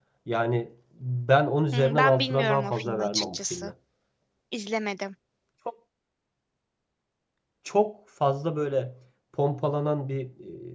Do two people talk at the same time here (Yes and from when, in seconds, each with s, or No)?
Yes, from 1.7 s